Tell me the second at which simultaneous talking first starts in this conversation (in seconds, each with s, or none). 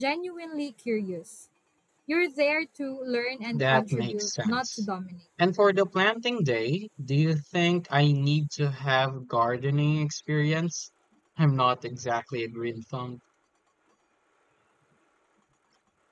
3.5 s